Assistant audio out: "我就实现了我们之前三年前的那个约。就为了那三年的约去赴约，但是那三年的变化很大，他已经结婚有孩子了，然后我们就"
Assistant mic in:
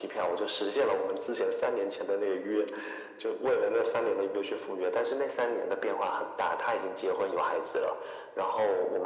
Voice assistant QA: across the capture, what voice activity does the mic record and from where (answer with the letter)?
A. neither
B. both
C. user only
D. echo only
D